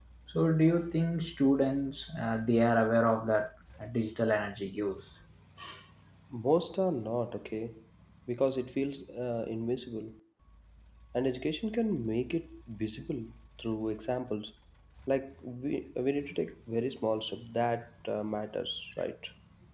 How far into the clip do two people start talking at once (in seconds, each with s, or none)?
none